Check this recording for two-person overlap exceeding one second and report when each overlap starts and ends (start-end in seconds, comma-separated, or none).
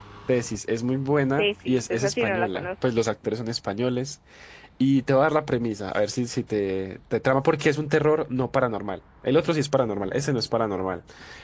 1.4-2.7